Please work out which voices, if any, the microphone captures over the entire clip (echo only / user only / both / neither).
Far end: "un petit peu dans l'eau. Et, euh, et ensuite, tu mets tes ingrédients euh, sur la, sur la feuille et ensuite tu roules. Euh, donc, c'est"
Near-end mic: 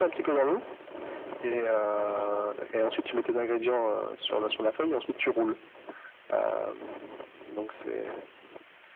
echo only